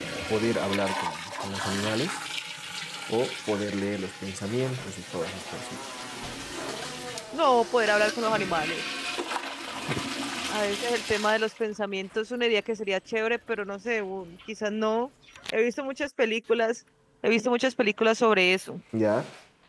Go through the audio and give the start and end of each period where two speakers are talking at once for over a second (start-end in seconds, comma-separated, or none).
none